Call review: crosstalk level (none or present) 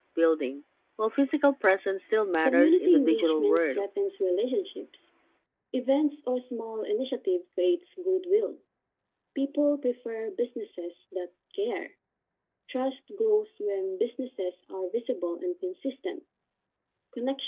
present